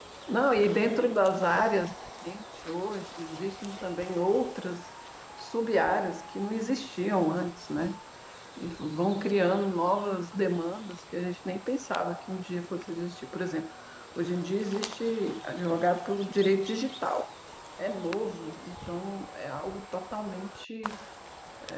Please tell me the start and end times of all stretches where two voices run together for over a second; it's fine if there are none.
none

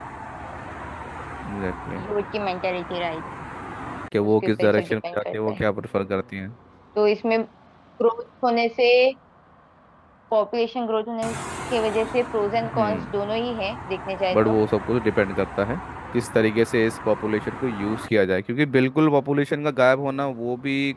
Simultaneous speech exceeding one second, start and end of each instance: 4.2-5.6

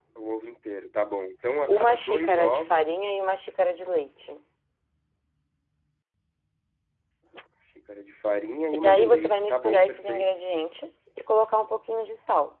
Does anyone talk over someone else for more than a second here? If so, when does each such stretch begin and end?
1.7-2.9, 8.8-10.3

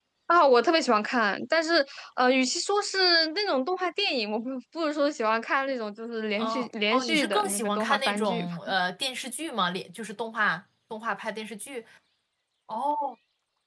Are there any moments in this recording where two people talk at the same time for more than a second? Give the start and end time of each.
6.4-8.5

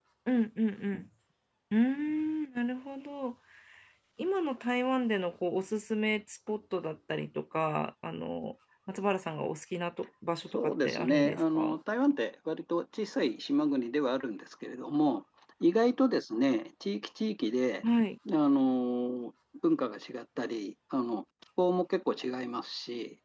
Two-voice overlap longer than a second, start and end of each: 10.5-11.8

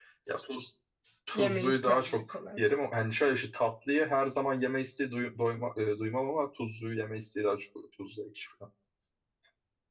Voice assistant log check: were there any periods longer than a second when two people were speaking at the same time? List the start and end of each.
1.4-2.6

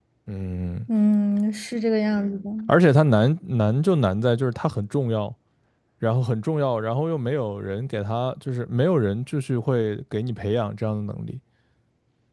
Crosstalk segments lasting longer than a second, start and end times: none

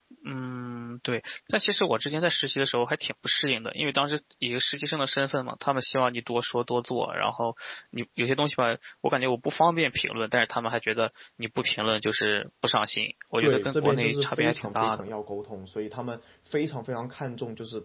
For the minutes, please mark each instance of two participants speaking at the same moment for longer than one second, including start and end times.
13.4-15.0

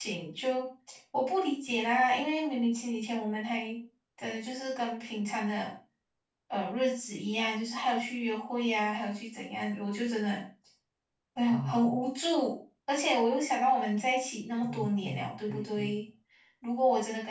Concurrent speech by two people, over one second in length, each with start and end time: 14.6-15.9

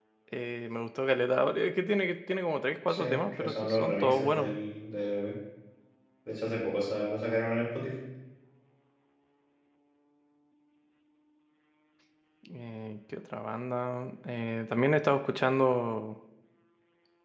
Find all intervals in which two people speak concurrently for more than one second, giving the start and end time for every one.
2.9-4.6

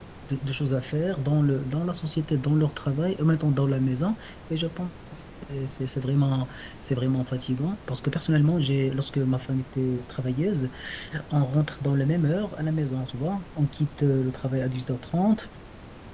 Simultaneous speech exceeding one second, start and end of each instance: none

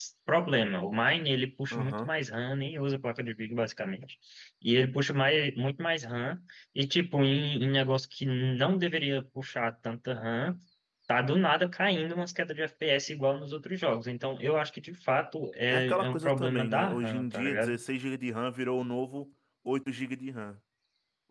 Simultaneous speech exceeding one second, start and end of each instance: 15.7-17.8

